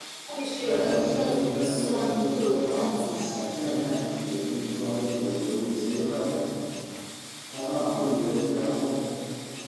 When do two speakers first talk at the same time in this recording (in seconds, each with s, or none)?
0.6 s